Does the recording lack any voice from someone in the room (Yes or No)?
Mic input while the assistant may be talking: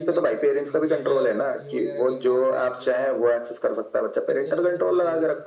No